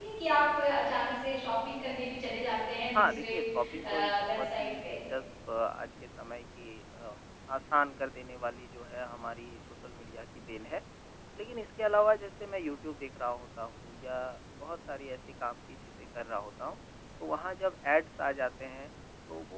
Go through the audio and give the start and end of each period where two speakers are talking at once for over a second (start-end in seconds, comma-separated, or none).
3.0-5.0